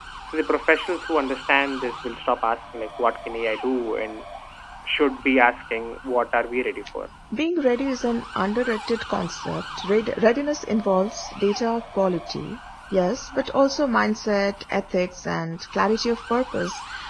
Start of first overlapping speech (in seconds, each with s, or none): none